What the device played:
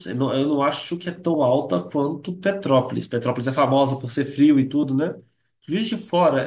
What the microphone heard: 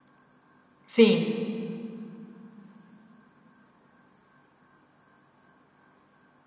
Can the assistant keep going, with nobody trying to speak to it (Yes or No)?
No